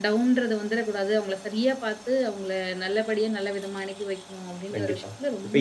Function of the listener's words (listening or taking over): taking over